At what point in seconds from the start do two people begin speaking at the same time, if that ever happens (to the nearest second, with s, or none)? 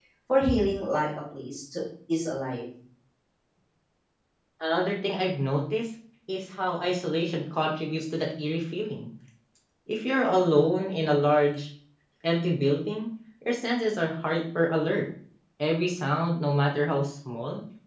none